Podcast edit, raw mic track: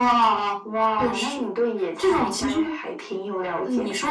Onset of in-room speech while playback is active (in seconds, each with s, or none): none